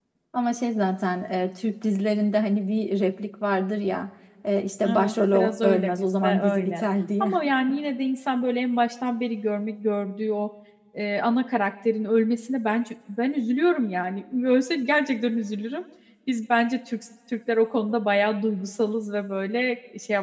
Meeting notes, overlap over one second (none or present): present